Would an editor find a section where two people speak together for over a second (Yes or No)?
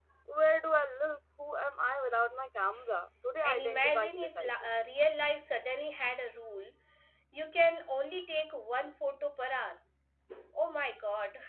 Yes